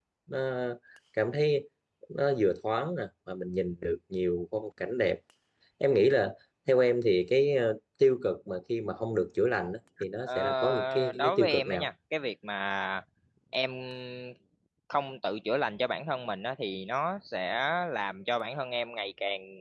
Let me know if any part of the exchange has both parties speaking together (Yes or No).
Yes